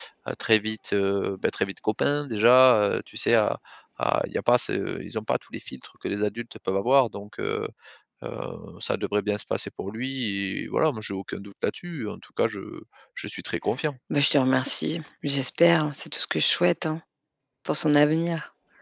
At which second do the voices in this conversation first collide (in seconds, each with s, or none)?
none